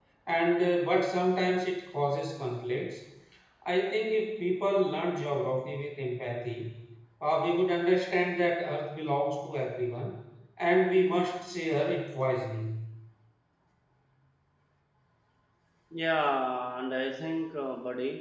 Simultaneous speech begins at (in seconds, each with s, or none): none